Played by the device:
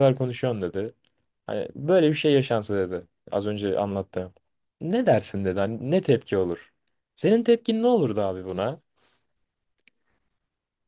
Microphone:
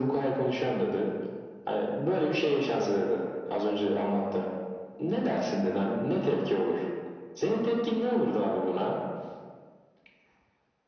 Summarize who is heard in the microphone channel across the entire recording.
echo only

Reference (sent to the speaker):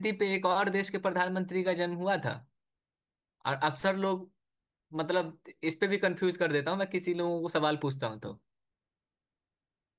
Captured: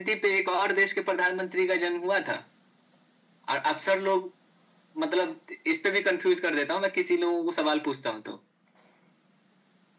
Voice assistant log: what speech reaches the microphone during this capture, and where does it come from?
echo only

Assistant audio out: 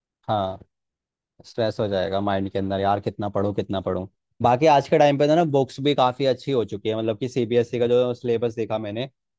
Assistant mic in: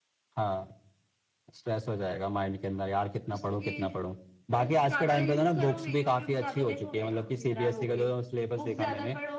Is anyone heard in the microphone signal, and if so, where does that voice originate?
both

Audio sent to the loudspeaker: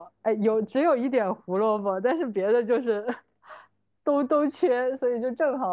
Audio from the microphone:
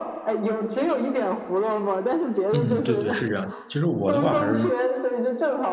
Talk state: both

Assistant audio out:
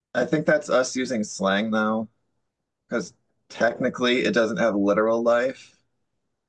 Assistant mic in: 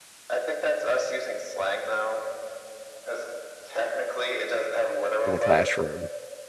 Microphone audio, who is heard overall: both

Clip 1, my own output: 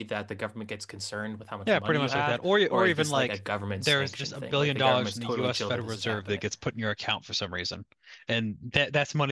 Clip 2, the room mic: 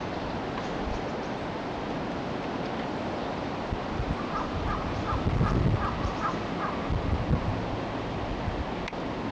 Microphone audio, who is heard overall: neither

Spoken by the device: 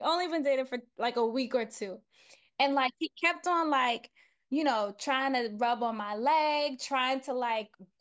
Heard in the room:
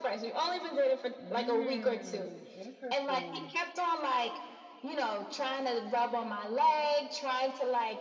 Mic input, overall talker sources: both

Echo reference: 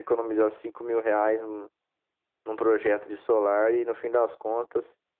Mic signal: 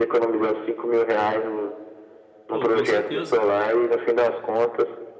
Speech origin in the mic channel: both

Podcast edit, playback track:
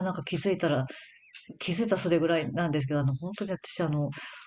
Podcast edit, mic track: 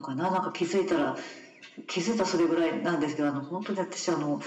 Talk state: echo only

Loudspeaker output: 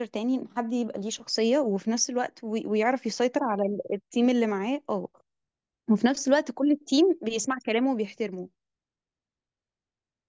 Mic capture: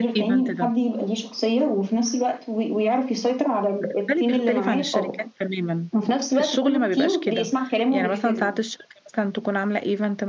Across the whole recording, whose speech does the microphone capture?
both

